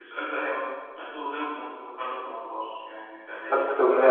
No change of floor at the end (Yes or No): No